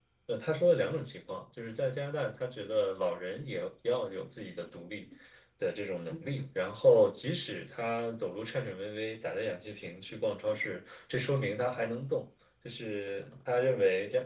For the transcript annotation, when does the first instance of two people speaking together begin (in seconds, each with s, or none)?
none